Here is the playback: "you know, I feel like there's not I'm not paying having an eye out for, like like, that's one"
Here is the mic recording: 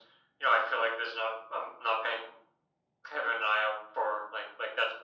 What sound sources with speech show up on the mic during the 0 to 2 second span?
echo only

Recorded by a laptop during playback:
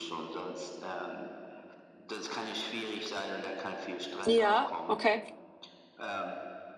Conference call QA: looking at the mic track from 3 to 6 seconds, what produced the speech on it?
both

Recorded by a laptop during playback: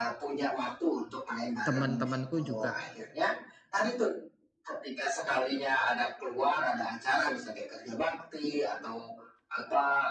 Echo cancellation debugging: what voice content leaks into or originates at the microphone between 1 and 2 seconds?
both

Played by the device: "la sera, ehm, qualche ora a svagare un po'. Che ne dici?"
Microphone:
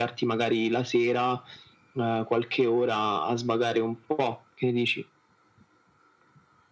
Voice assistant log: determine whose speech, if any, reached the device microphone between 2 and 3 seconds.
echo only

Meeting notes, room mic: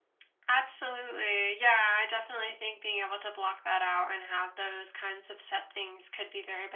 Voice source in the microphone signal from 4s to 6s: echo only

